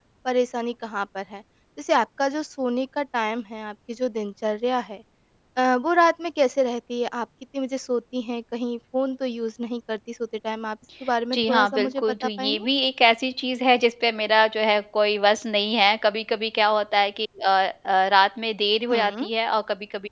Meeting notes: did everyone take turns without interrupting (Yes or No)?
No